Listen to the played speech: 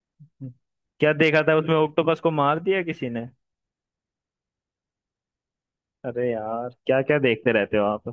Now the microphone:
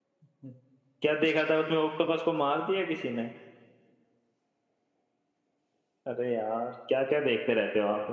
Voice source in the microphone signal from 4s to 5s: neither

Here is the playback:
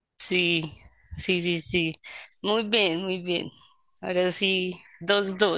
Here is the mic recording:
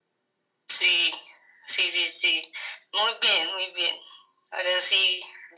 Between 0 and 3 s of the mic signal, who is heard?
echo only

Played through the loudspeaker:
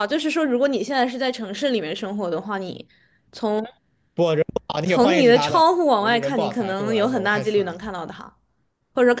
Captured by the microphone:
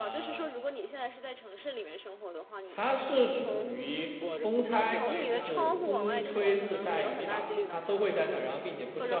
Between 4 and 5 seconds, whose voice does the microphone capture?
both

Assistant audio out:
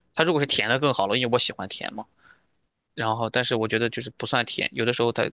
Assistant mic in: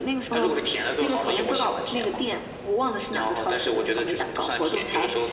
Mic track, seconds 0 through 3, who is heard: both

